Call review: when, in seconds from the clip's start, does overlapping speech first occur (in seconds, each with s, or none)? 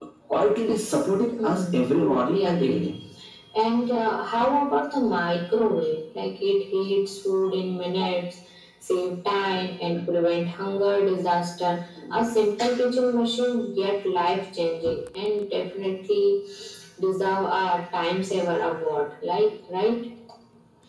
1.4 s